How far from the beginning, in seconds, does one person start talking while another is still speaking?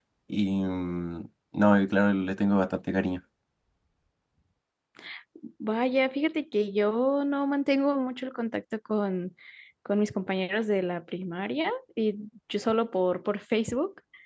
none

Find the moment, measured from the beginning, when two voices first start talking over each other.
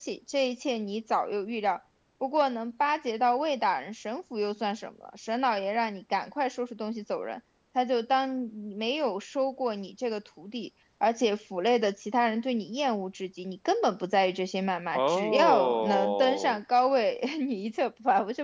14.9 s

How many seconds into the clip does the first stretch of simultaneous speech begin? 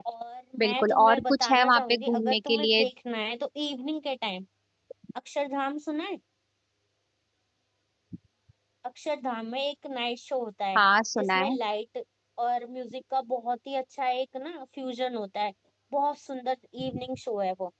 0.6 s

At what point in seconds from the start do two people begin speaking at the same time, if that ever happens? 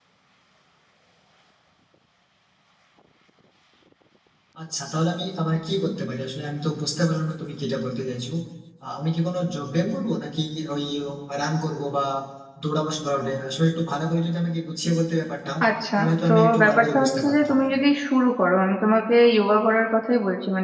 15.9 s

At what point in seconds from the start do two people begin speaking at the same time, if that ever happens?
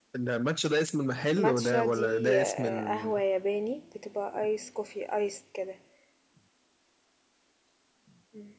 1.4 s

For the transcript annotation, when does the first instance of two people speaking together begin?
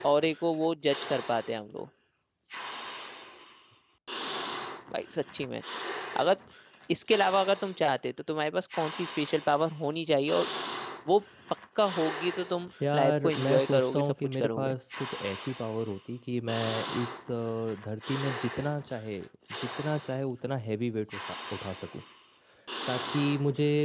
12.8 s

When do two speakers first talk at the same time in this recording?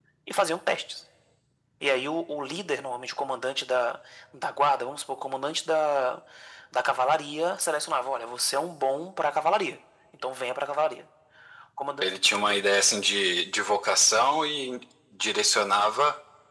none

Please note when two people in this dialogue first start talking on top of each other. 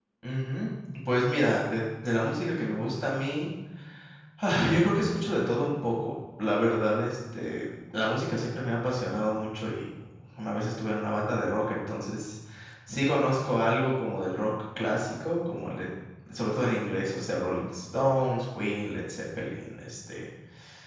none

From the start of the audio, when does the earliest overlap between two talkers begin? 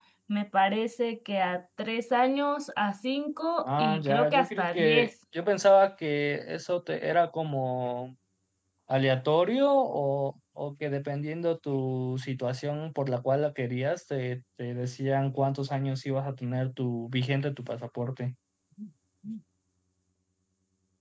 3.6 s

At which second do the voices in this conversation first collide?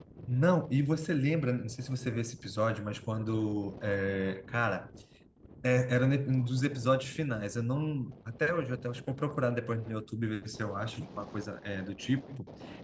none

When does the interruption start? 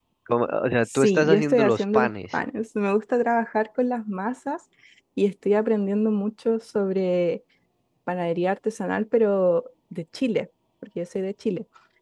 0.9 s

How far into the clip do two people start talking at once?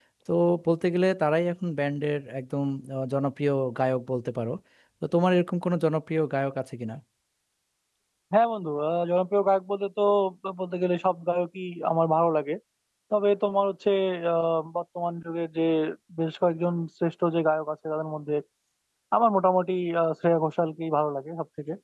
none

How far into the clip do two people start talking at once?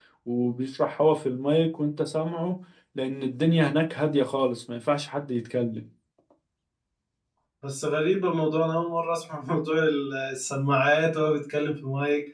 none

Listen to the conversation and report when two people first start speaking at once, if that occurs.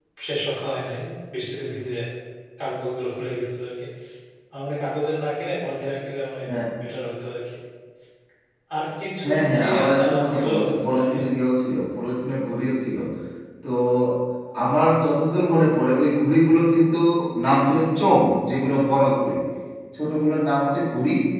9.2 s

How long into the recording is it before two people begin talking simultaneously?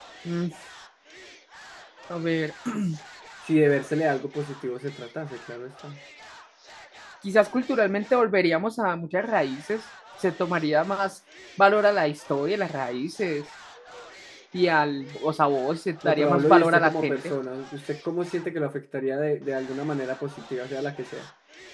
16.0 s

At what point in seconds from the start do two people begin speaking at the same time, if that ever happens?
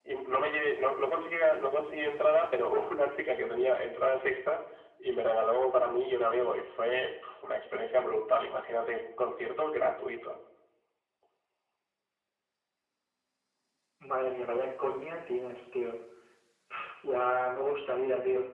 none

